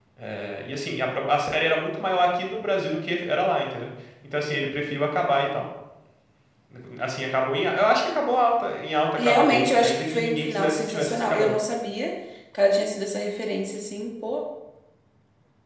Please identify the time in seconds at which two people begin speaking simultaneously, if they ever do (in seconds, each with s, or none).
9.2 s